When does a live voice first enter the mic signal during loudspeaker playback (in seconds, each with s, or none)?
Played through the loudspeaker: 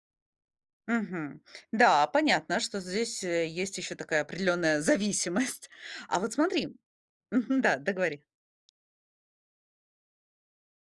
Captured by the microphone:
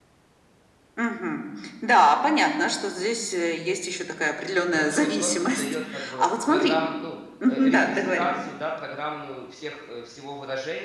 4.7 s